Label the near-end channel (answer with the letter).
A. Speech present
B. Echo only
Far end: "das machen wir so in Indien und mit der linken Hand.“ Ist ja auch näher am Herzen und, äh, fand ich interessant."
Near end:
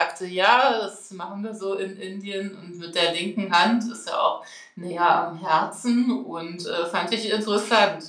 B